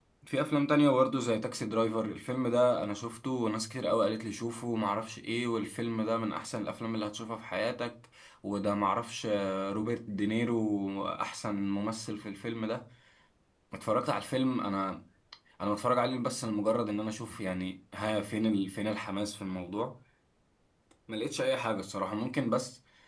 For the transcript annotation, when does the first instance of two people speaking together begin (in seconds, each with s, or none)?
none